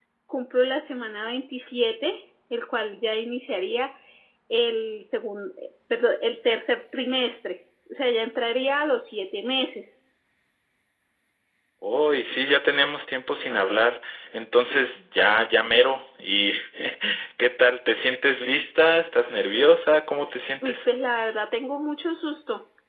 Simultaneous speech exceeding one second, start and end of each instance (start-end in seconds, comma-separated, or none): none